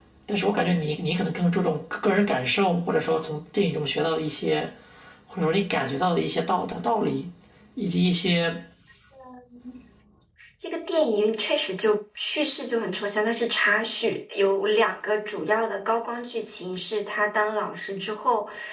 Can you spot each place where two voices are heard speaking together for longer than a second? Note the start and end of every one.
none

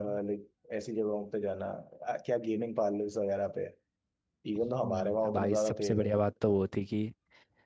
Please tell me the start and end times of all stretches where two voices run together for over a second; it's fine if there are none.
4.6-6.1

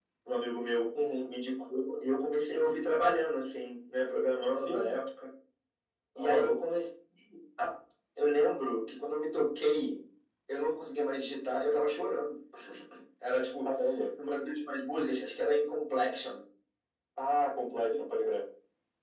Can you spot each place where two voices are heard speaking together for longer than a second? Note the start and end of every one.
none

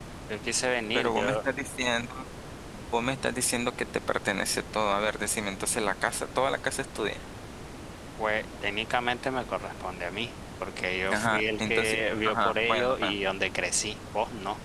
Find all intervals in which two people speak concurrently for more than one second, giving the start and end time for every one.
11.1-13.1

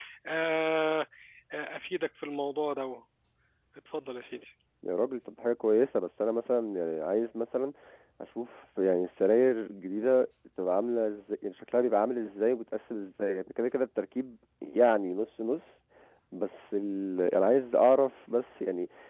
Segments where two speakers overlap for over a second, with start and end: none

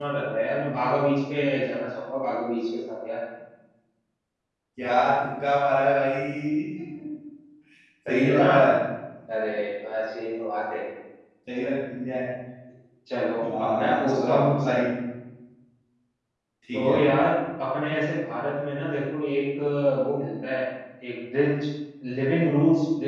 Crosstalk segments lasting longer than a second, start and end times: 13.6-14.8

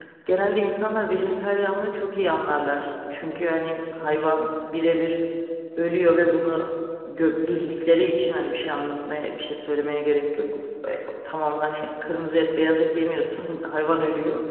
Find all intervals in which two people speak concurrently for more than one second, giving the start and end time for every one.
none

